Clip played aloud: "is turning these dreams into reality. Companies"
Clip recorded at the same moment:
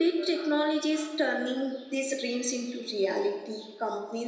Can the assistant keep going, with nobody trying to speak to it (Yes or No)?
Yes